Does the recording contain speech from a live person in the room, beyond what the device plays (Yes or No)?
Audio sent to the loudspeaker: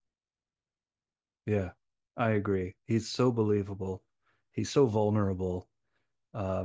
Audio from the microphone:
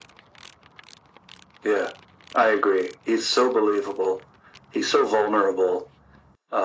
No